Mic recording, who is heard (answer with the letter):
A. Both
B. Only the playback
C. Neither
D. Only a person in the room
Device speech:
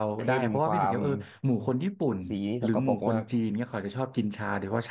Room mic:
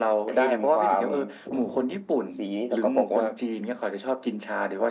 B